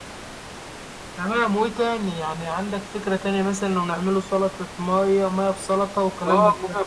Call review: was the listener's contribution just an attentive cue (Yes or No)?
No